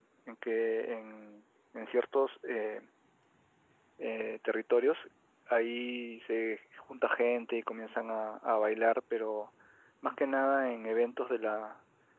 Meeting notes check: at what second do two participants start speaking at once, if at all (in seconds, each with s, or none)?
none